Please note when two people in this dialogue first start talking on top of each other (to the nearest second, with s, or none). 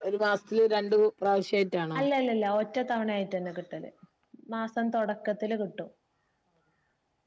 none